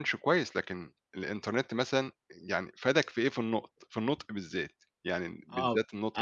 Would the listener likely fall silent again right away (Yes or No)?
No